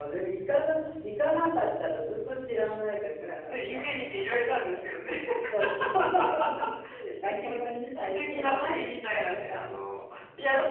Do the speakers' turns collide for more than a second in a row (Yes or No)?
Yes